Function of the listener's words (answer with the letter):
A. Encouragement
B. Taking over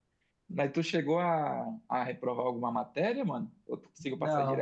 B